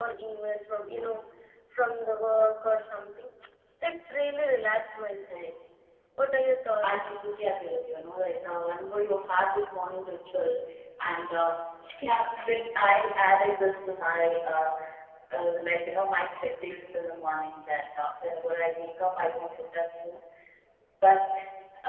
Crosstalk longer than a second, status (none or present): none